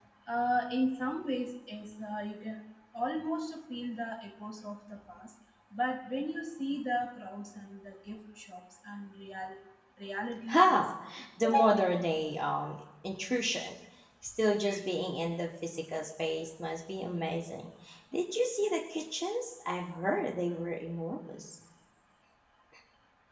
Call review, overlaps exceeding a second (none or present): none